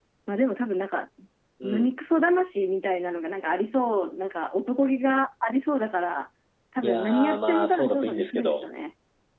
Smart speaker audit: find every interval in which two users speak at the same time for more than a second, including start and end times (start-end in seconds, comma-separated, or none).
6.8-8.6